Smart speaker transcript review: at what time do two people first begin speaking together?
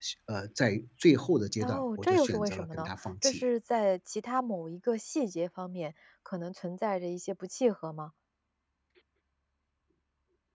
1.6 s

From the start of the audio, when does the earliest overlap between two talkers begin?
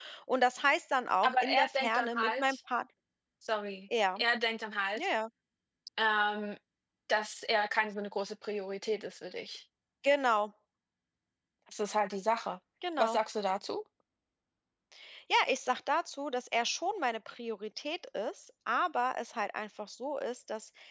1.2 s

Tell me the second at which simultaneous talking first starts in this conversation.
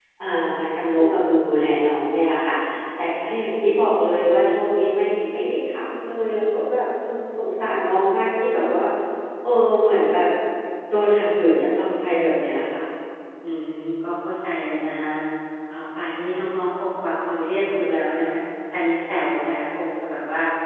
none

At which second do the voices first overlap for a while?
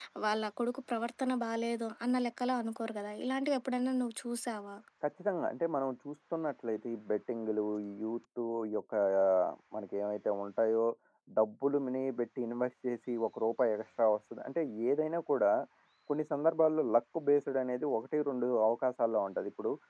none

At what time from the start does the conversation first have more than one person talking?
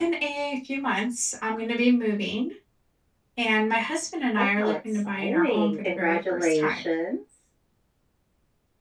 4.4 s

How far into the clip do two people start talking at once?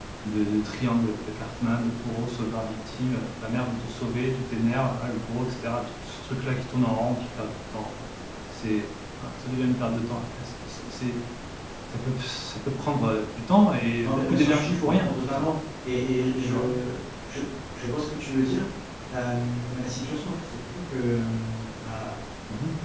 14.0 s

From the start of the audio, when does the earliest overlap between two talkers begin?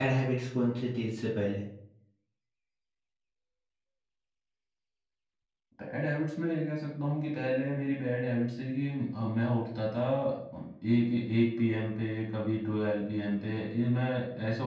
none

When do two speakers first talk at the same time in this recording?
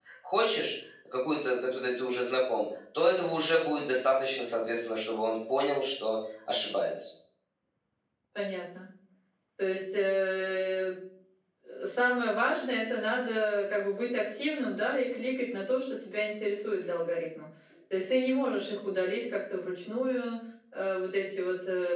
none

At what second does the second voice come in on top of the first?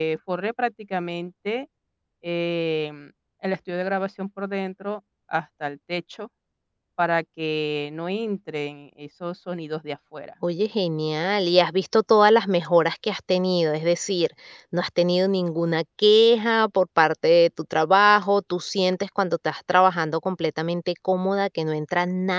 none

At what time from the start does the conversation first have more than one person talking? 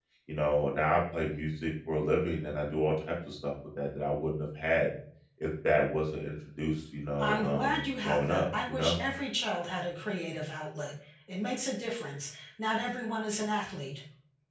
7.2 s

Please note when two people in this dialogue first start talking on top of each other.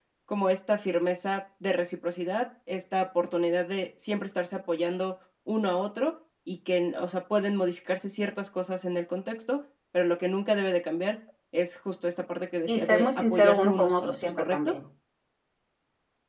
12.7 s

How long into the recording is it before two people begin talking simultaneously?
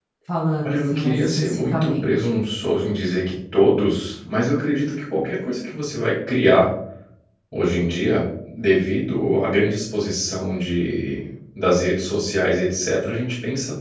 0.6 s

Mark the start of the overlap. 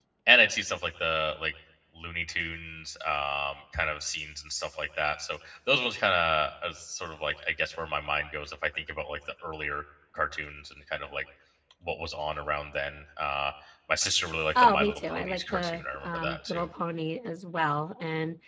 14.6 s

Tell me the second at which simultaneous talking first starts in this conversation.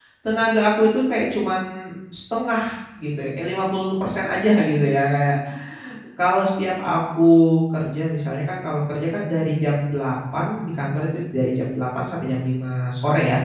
none

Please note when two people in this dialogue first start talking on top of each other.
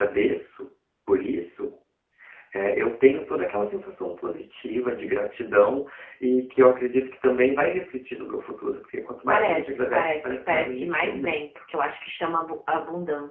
9.3 s

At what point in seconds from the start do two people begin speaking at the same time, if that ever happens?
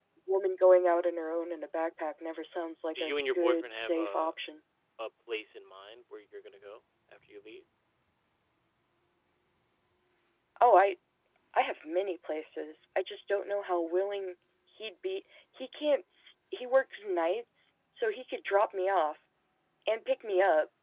3.0 s

